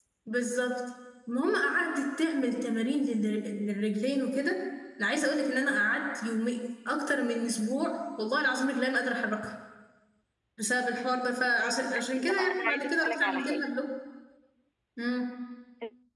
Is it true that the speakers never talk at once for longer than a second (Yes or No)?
No